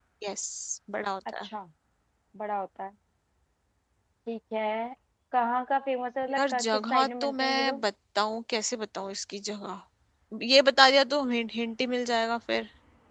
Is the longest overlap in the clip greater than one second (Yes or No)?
Yes